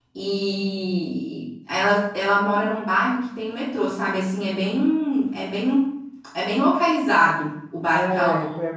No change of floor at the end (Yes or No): No